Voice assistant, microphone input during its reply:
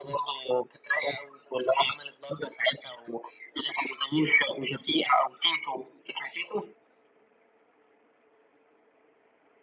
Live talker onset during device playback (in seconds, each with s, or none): none